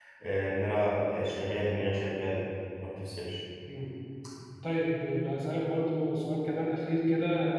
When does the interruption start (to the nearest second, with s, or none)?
none